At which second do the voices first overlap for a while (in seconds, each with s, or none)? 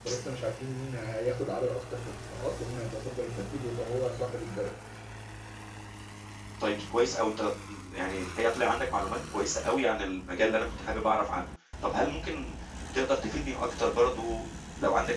none